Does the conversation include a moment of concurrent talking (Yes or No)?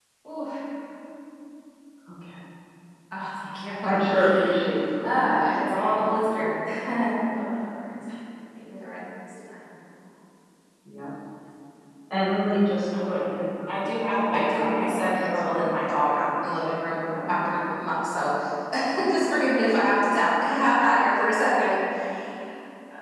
Yes